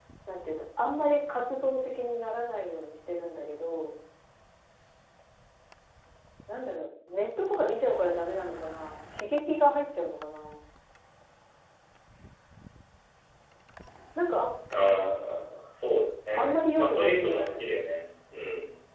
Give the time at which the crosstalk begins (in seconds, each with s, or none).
16.3 s